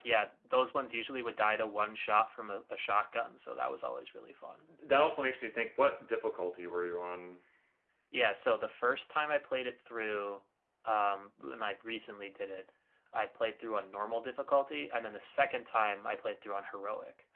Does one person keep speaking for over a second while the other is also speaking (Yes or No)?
No